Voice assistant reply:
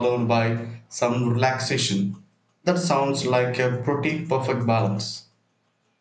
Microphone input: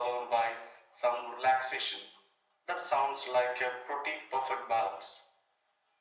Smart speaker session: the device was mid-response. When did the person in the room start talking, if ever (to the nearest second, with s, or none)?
none